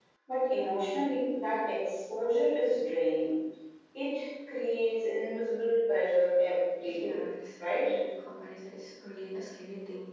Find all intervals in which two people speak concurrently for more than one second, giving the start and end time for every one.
none

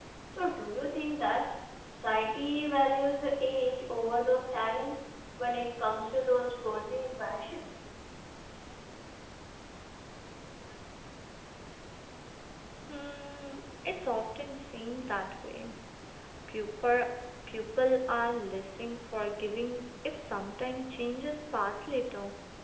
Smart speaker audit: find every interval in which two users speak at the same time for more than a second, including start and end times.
none

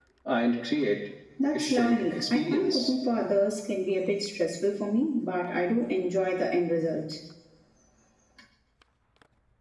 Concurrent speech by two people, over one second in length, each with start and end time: 1.5-2.8

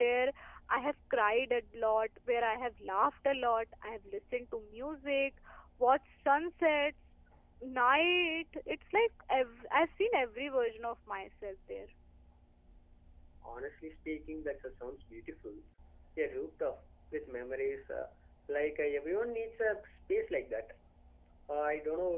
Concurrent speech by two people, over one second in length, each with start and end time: none

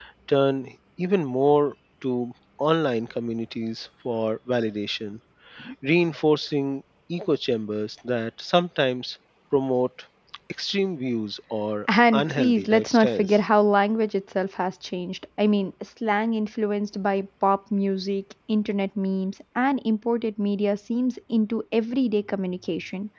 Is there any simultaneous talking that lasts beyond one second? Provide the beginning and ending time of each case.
12.1-13.4

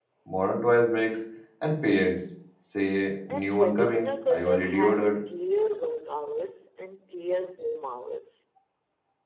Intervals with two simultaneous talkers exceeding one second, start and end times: 3.3-5.2

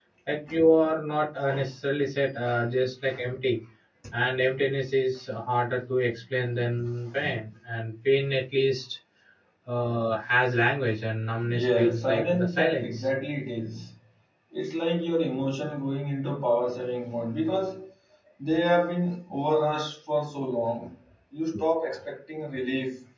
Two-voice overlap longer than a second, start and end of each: 11.5-13.1

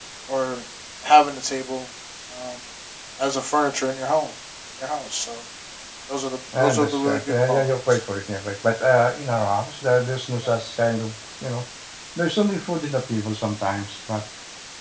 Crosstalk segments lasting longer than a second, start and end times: 6.6-8.0

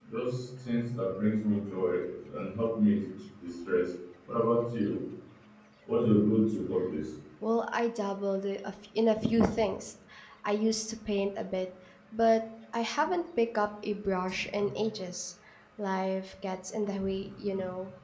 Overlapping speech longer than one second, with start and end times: none

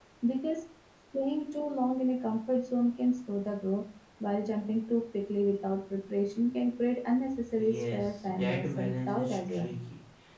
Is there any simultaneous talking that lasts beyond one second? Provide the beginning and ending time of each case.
7.6-9.7

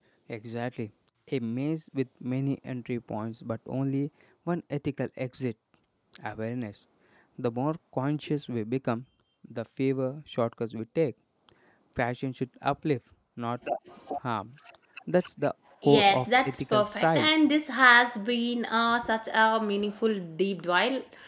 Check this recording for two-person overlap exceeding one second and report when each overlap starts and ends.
15.8-17.3

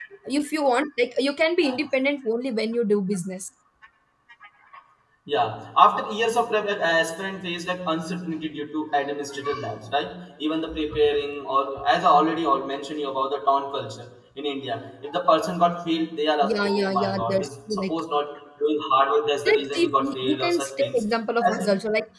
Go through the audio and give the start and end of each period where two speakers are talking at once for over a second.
16.4-17.9, 19.5-21.0

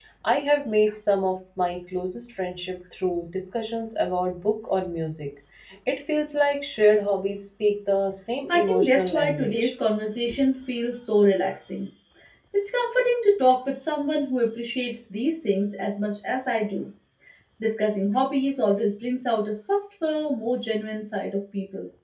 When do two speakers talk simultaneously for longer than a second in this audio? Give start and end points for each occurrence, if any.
8.5-9.7

